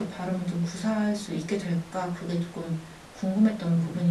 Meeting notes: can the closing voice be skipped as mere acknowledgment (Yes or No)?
No